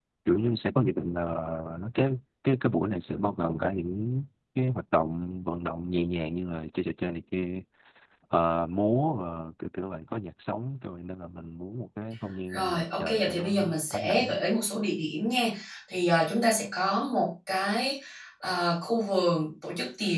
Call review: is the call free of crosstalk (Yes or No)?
No